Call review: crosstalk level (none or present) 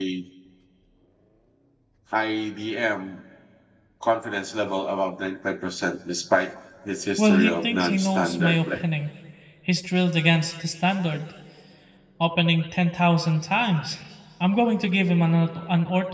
present